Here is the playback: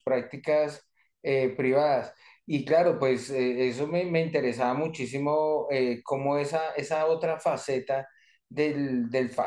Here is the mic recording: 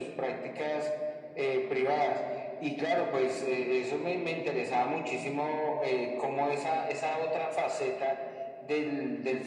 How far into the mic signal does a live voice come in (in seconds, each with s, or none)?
none